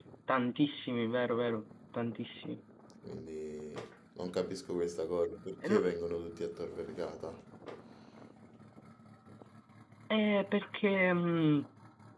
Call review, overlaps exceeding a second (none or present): none